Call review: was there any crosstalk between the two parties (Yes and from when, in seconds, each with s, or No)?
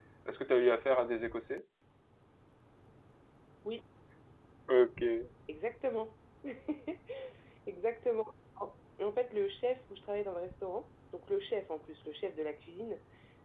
No